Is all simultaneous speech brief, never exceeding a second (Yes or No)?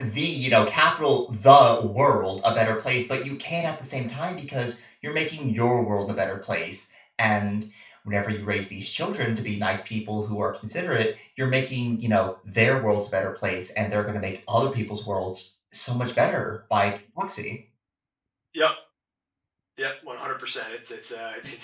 Yes